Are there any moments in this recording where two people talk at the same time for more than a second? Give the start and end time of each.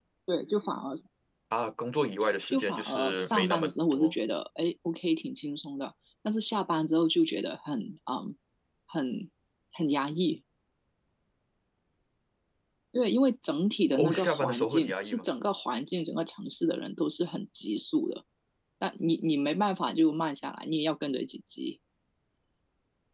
2.5-4.2, 13.9-15.2

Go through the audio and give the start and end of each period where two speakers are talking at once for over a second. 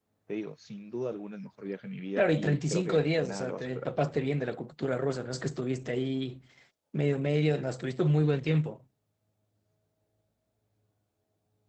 2.2-3.9

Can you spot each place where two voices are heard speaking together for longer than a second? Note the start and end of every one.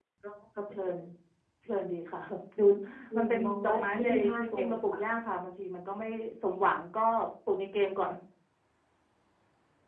3.2-5.0

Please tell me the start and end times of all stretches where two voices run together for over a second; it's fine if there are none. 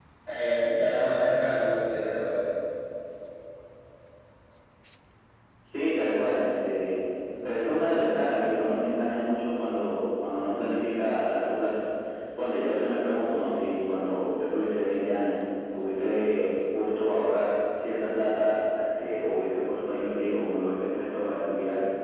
none

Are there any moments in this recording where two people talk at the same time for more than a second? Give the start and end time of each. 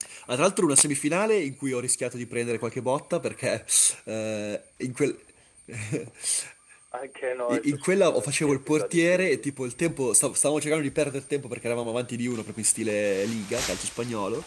7.5-9.5

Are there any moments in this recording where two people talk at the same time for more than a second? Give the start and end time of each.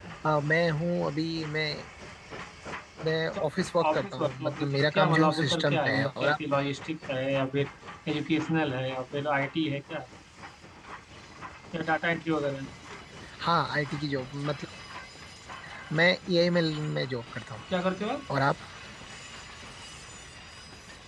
3.9-6.4

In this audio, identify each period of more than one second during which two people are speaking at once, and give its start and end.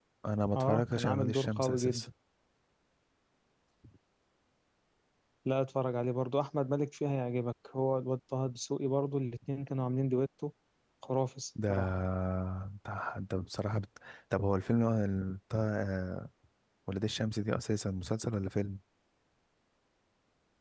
0.6-2.1

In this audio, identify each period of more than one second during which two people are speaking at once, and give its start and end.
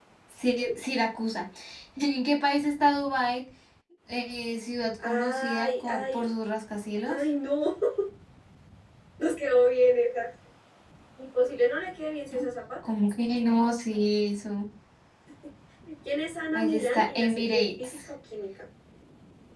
5.0-6.3, 16.5-17.9

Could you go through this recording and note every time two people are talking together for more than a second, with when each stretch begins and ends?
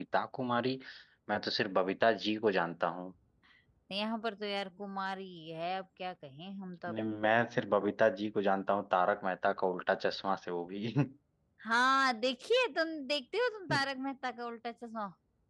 none

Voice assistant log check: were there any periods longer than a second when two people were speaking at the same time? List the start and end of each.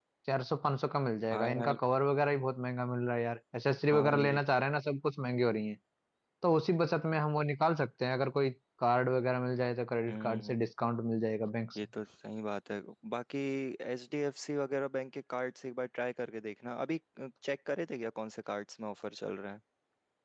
none

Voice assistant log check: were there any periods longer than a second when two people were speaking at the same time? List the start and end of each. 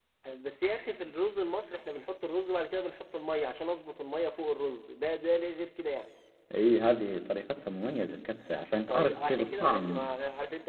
8.7-10.1

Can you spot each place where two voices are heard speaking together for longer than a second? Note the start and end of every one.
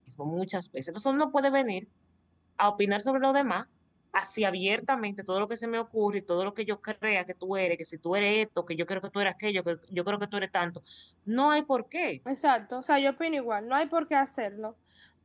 none

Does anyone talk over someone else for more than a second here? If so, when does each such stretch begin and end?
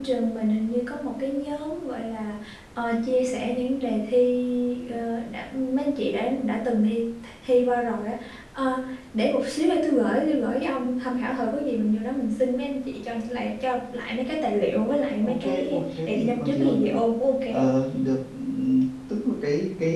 15.2-17.0

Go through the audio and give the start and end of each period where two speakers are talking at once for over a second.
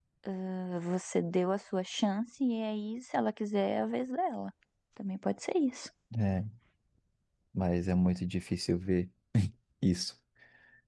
none

